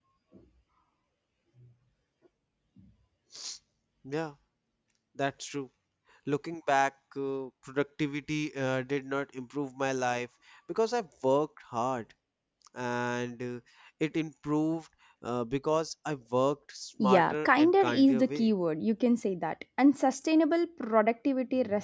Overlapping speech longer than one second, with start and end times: 17.0-18.5

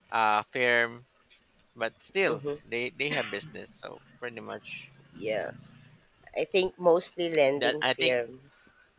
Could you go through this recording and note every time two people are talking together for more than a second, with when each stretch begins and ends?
none

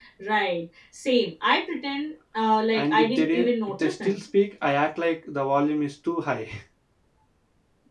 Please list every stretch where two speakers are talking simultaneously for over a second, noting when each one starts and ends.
2.7-4.2

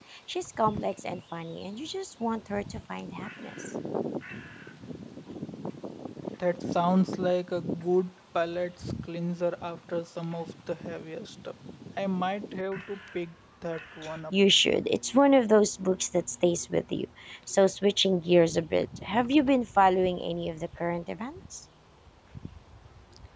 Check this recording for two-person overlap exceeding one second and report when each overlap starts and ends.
none

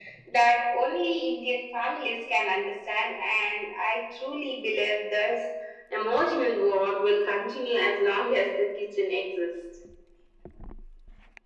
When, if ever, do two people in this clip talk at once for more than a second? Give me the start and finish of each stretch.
none

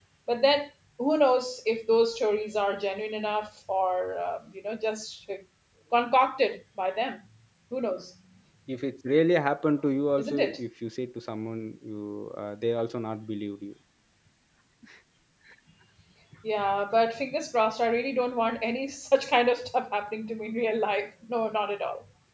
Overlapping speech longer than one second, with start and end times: none

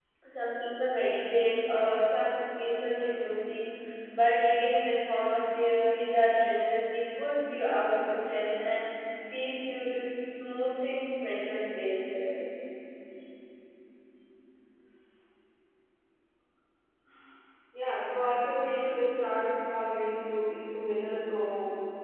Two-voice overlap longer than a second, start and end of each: none

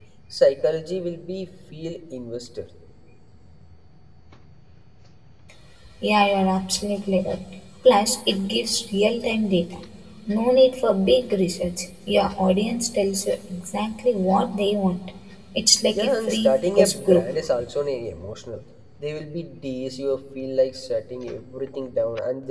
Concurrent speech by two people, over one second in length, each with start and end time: 15.9-17.2

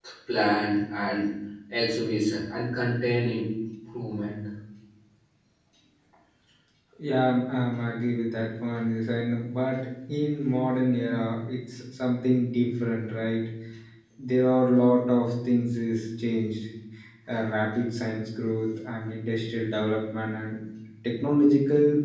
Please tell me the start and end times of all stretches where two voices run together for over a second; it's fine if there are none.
none

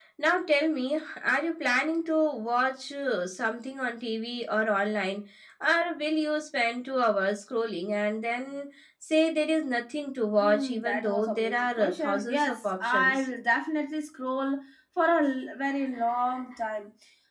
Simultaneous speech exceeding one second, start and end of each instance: 10.4-13.2

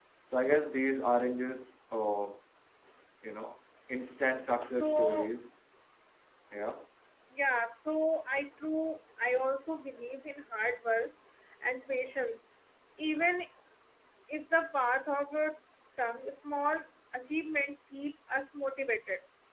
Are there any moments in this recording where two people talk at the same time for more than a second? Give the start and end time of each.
4.1-5.3

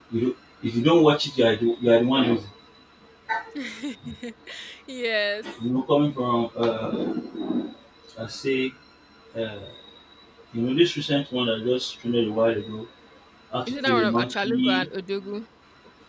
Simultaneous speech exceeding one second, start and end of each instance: 13.7-14.9

